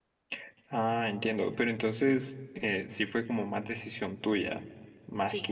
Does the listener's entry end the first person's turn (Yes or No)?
No